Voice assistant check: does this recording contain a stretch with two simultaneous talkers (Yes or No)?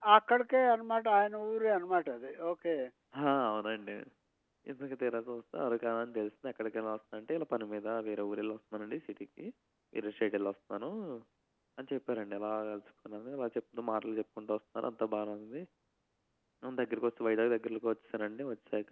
No